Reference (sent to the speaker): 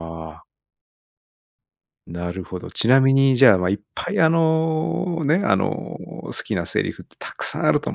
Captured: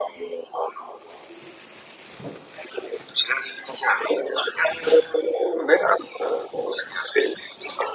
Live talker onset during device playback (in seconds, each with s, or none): none